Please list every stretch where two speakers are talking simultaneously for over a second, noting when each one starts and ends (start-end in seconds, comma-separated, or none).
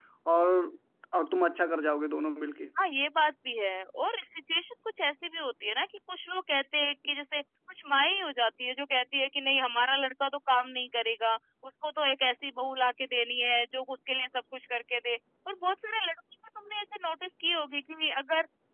none